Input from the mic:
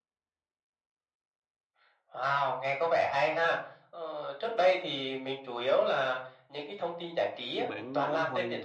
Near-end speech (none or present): present